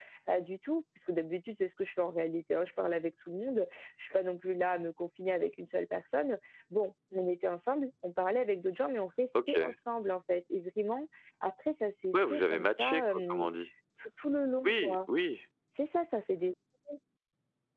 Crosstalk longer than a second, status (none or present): present